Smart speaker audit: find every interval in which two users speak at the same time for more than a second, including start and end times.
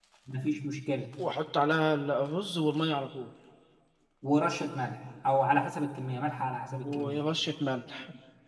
none

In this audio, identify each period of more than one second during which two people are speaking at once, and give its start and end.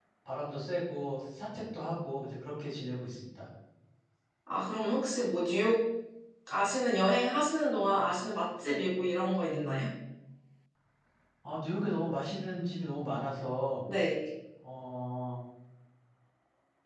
none

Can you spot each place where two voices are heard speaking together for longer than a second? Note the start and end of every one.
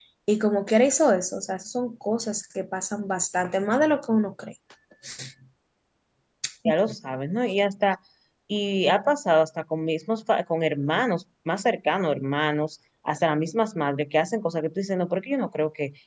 none

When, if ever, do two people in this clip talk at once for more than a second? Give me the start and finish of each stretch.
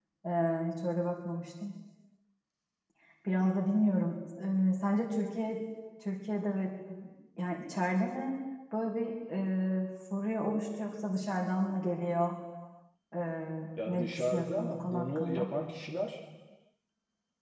13.9-15.5

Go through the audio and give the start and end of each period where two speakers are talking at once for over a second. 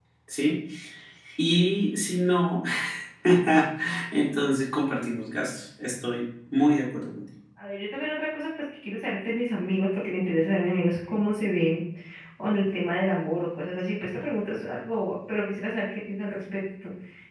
none

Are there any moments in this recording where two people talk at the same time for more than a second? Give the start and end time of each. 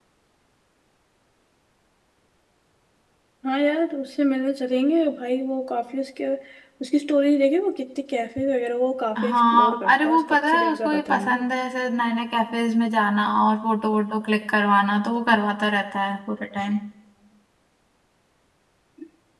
9.2-11.4

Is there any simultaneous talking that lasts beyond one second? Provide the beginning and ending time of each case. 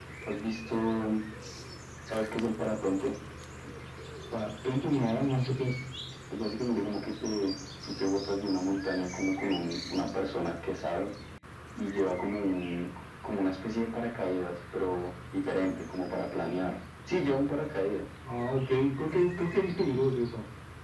none

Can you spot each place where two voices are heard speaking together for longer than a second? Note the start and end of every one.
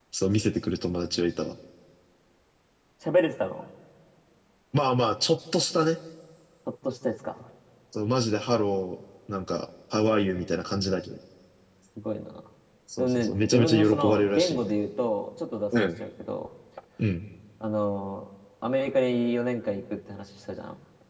13.0-14.7

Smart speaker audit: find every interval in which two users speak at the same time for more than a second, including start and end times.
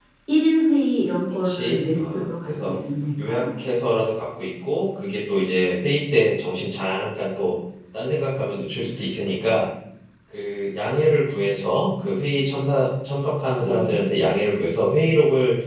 1.4-2.8

